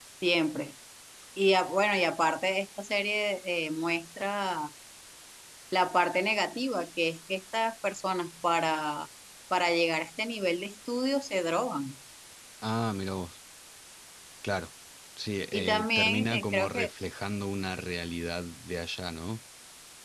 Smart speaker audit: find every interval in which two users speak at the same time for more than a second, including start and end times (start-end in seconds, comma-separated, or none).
15.5-16.9